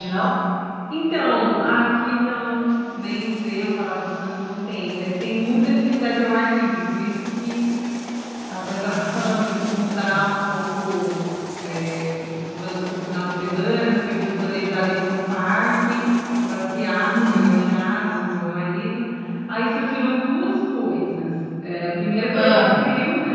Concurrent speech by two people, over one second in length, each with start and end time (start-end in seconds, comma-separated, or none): none